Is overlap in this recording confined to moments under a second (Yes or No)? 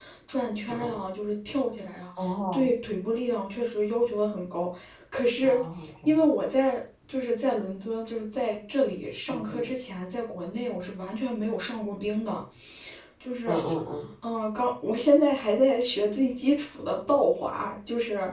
Yes